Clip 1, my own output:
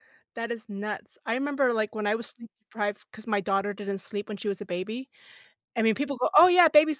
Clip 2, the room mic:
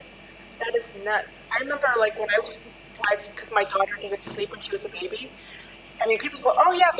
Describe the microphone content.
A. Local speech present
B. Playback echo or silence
B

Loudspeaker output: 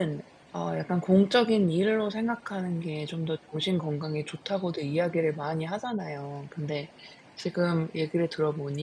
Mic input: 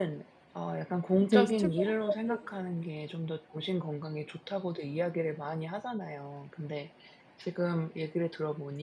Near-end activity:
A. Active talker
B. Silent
A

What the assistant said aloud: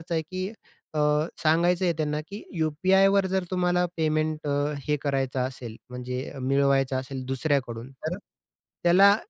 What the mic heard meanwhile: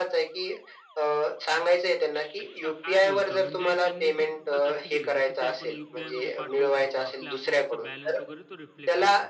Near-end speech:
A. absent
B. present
B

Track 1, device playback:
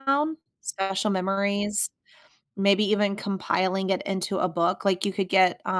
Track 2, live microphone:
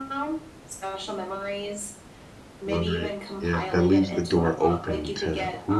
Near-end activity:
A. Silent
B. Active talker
B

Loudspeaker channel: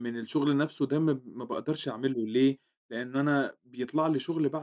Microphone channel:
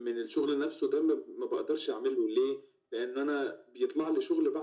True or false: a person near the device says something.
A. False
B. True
A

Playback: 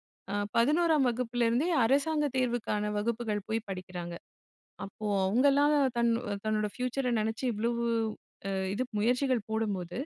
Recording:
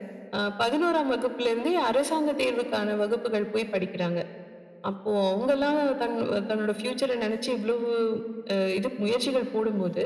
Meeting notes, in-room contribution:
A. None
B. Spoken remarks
A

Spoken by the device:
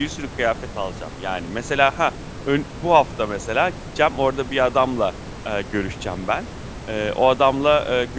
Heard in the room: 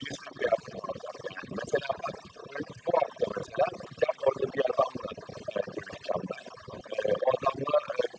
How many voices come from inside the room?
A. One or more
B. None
B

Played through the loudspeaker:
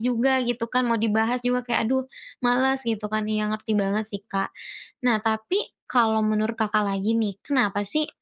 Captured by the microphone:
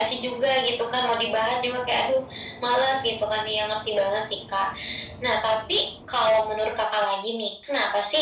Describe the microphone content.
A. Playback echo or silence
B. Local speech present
A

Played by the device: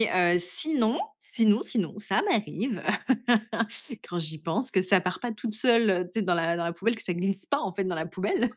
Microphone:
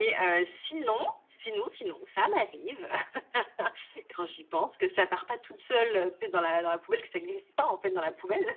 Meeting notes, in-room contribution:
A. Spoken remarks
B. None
B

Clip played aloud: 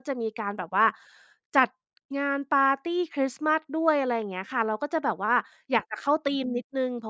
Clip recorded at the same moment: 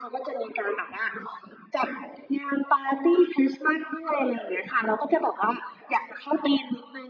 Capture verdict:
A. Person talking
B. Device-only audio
B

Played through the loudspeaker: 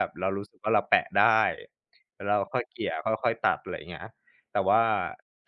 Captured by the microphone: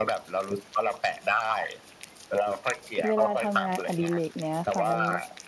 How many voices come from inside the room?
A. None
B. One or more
B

